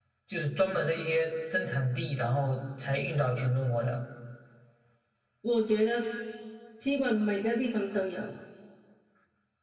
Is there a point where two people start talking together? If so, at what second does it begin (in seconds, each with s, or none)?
none